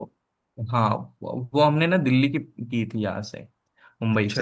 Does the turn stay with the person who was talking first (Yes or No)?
Yes